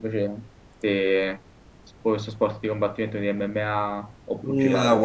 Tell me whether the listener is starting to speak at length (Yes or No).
Yes